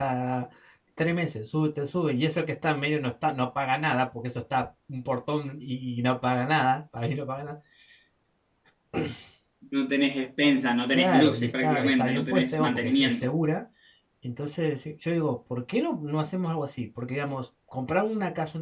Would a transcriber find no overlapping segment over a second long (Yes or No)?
No